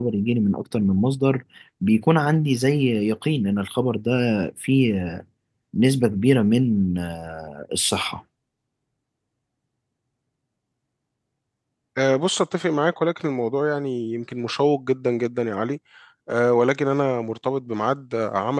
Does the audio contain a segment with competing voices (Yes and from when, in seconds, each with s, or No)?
No